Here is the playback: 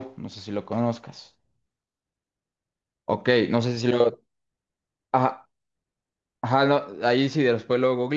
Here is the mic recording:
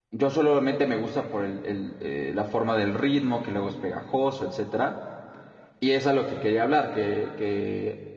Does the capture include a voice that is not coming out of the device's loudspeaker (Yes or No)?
Yes